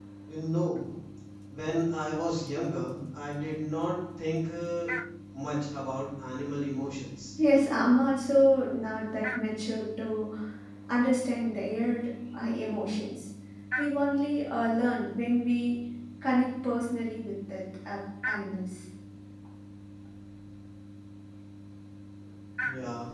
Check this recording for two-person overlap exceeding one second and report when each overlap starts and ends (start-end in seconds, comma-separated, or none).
none